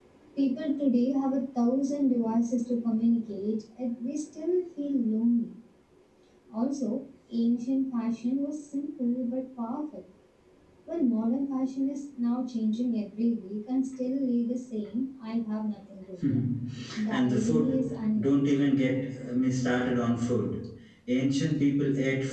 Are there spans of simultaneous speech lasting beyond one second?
Yes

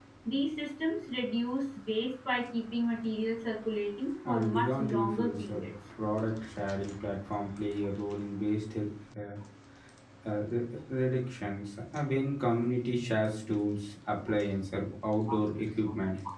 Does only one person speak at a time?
No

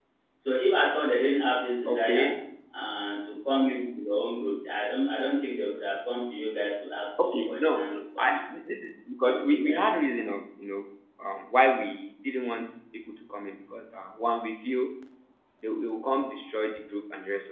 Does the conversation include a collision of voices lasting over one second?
Yes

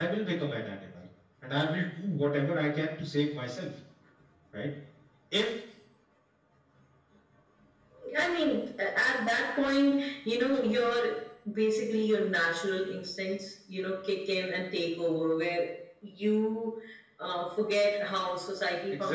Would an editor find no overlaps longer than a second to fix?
Yes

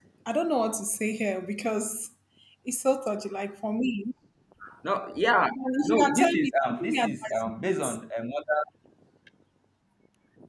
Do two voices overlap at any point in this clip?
Yes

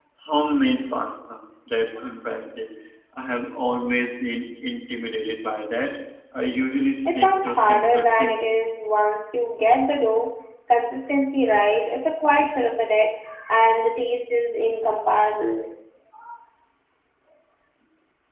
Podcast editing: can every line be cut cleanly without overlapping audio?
No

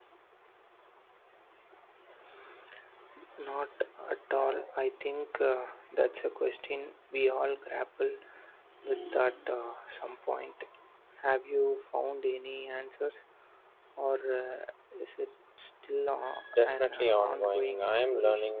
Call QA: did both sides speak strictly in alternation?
No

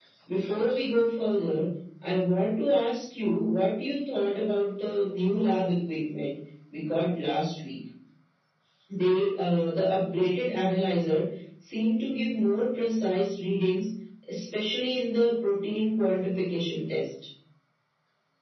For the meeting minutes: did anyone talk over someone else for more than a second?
No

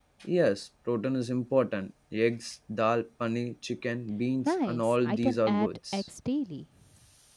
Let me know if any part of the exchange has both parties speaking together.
Yes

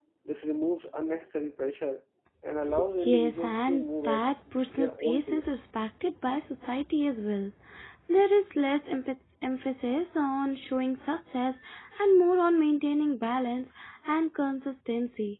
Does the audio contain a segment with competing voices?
Yes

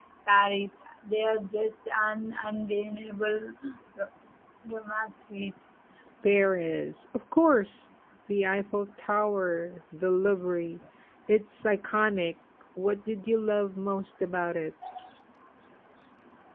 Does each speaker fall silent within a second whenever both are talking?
Yes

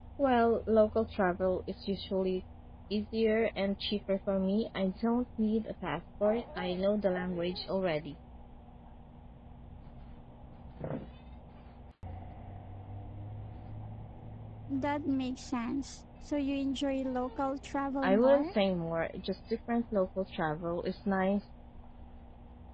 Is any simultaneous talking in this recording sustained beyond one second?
No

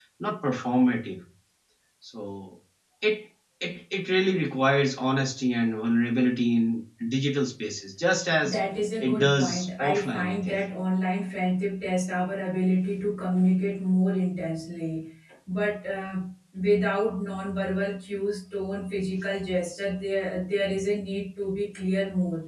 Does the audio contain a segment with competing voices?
Yes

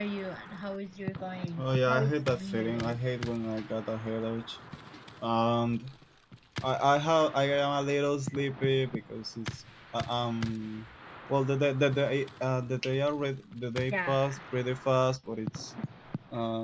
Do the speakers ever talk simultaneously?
Yes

